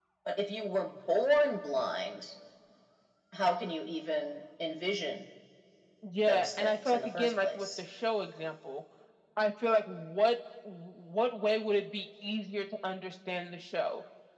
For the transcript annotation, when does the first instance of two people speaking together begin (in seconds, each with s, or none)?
6.3 s